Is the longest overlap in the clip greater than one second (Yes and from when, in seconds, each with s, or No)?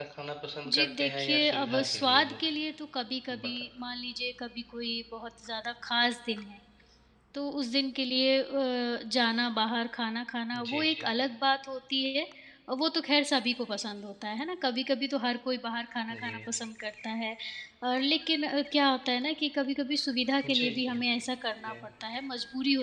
Yes, from 0.7 s